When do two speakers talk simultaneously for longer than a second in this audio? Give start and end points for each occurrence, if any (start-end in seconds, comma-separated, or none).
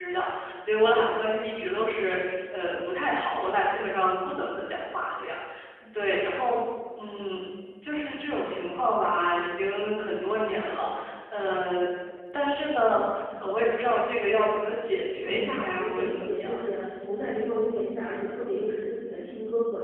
15.3-16.5